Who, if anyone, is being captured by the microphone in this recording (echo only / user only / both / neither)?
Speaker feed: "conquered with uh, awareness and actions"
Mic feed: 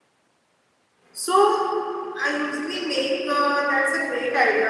user only